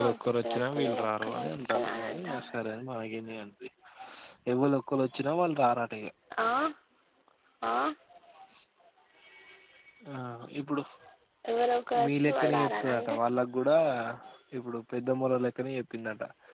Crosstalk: present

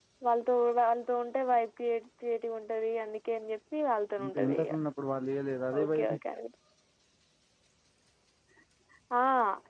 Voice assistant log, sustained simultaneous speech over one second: none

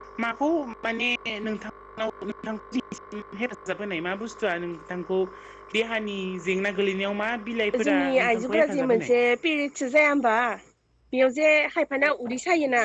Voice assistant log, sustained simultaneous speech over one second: present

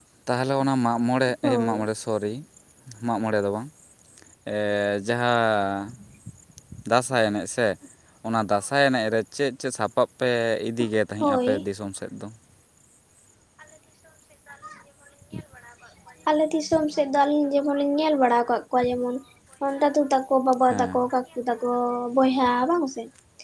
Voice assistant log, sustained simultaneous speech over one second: none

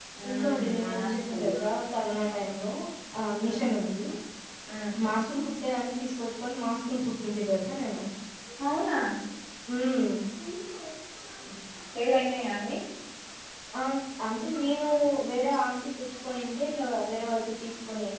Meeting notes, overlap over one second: present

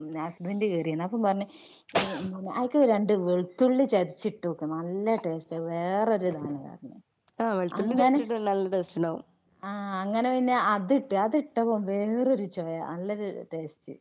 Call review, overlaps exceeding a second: none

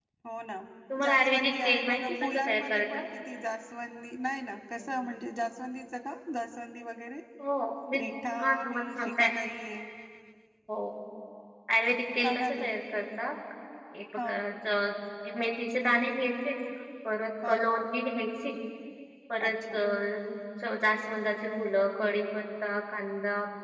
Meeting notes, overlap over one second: present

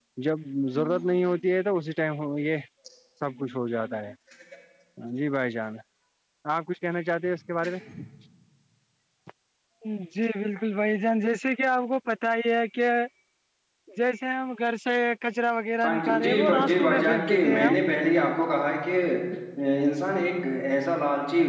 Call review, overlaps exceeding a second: present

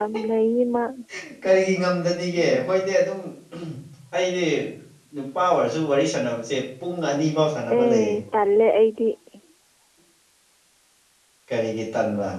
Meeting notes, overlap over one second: none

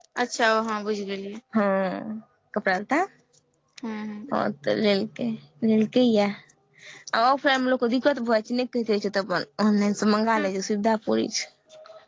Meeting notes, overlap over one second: none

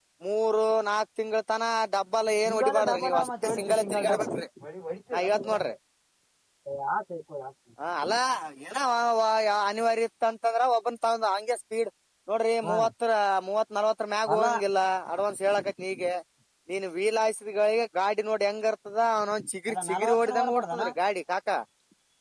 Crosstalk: present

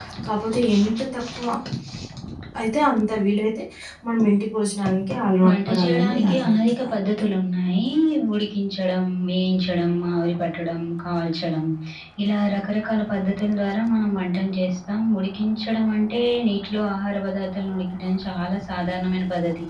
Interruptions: present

